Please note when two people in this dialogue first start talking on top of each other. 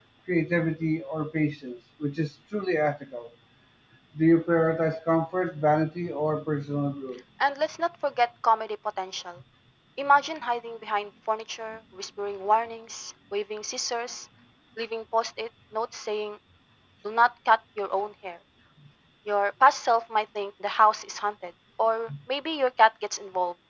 none

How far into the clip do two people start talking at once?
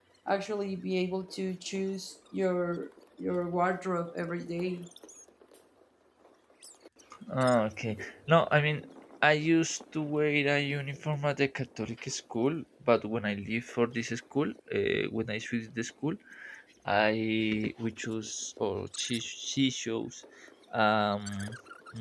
none

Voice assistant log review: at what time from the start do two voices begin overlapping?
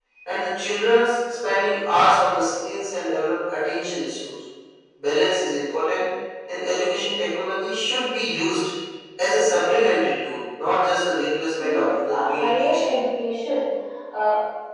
11.6 s

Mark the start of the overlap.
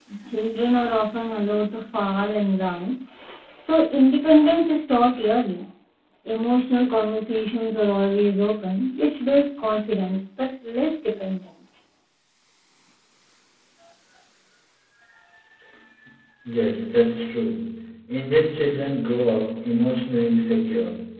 none

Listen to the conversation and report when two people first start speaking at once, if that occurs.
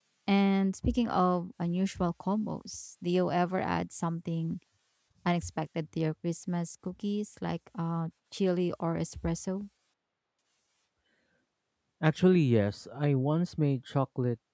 none

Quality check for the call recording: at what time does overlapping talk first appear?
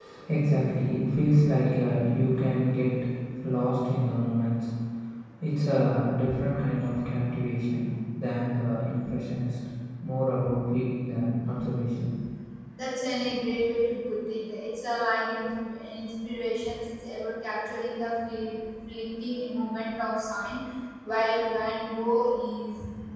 none

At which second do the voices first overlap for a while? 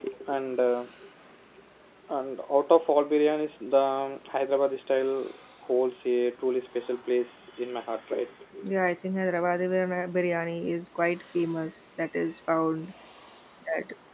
none

